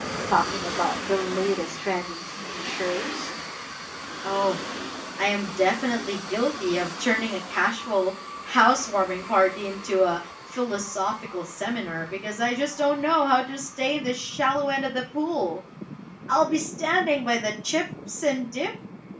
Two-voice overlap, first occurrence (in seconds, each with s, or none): none